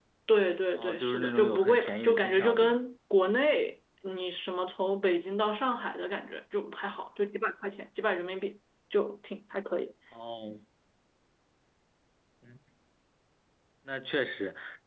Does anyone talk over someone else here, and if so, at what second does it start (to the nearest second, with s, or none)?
1 s